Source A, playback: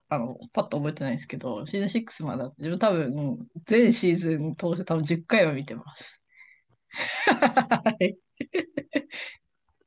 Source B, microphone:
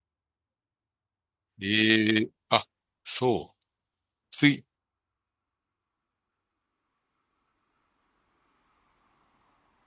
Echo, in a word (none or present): none